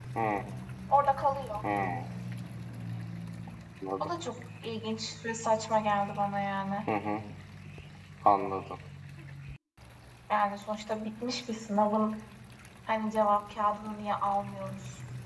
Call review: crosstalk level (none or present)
none